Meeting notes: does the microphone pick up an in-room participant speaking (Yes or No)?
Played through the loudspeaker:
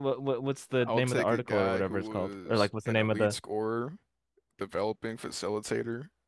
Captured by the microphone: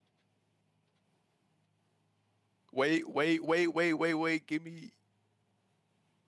Yes